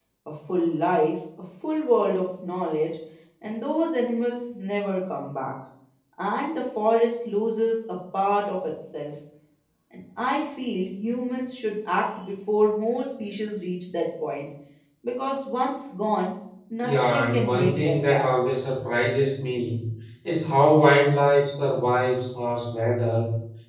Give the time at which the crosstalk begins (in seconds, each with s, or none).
16.8 s